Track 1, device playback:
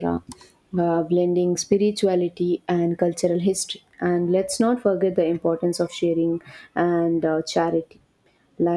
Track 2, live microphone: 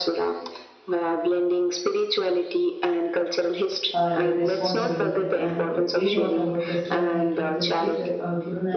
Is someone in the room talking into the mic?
Yes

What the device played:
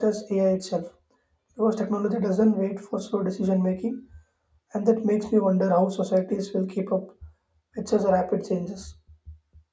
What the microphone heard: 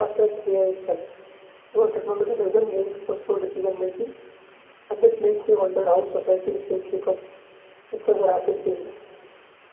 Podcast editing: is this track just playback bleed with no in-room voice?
Yes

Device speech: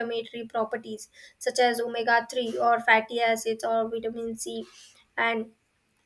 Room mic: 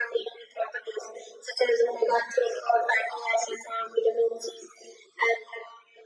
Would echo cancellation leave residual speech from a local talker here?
No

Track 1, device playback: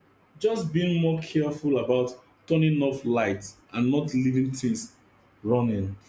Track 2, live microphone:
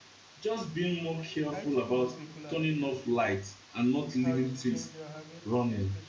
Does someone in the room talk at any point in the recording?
Yes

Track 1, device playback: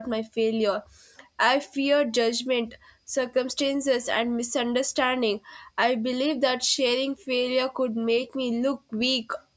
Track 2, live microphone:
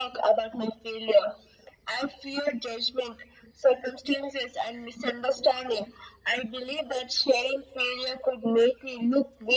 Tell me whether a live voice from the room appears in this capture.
No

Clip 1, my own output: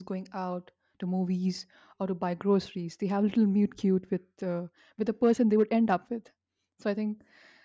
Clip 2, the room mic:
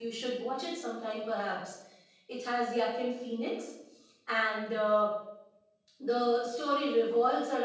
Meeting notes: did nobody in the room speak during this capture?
No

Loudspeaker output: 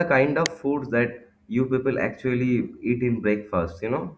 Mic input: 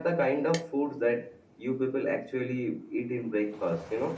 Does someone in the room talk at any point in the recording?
No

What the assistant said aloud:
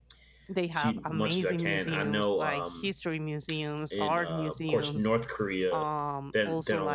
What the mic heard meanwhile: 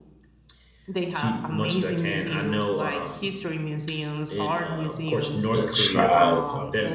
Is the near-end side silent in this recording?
No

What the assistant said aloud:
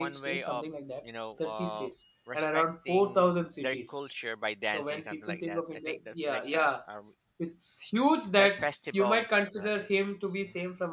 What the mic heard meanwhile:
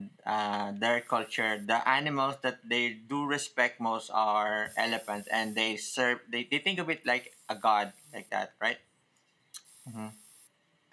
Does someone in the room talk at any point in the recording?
Yes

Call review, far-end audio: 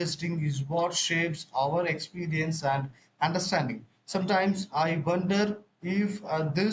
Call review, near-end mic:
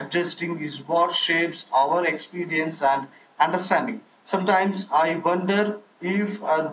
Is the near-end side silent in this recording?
Yes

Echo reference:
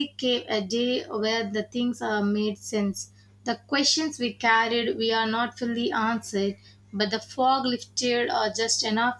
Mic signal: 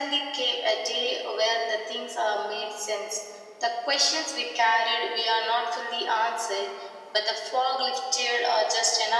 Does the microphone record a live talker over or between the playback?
No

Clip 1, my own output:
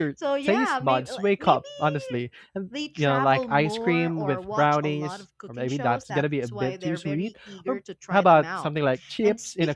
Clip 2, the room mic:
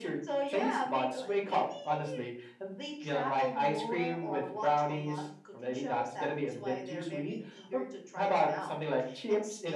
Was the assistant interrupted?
No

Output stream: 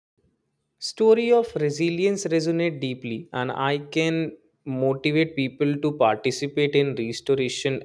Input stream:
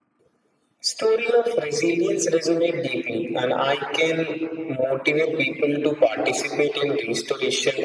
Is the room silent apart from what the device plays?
Yes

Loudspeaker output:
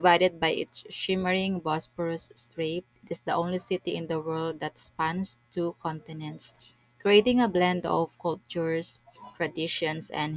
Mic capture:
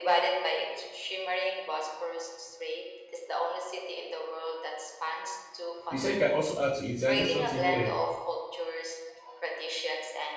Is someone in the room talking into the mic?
Yes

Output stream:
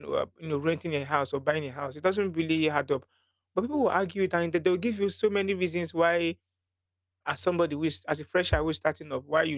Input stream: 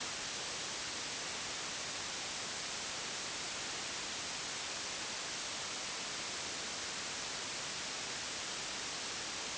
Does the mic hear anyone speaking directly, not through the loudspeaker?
No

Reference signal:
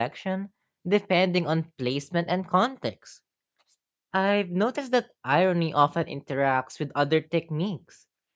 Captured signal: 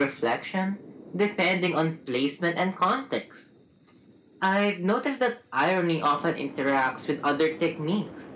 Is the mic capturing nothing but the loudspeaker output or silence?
Yes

